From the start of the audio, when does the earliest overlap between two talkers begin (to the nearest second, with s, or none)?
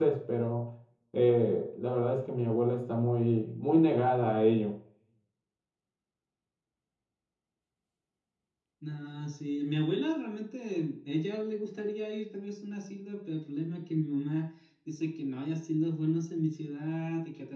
none